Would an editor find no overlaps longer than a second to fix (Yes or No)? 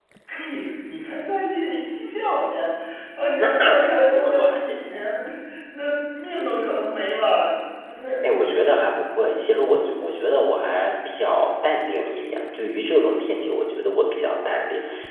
No